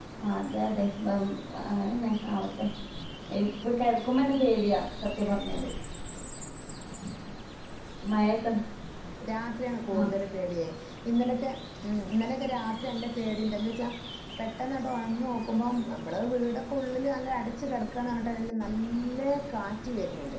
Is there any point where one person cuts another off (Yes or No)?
No